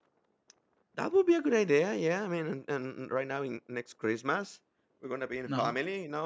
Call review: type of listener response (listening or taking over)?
listening